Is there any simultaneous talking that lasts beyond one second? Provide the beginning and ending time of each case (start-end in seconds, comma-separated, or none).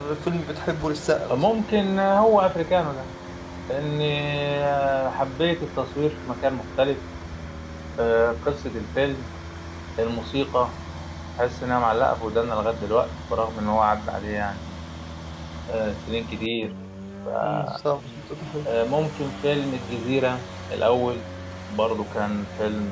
none